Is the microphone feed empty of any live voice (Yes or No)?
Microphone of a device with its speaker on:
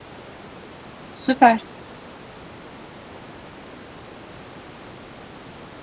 No